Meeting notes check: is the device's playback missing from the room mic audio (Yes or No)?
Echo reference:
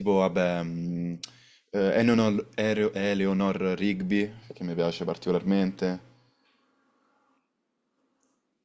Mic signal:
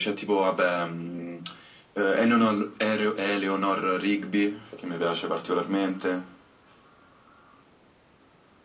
No